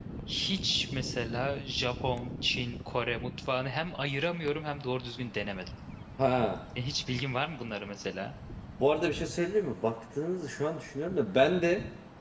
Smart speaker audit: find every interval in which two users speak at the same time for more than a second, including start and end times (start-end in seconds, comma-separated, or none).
none